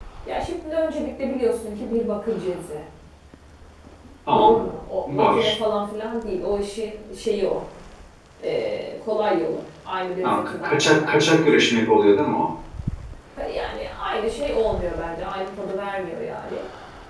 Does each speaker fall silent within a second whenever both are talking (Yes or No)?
No